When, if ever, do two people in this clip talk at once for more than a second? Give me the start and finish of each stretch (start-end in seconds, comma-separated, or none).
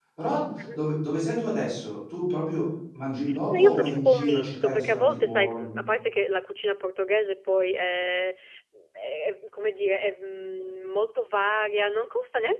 3.5-5.9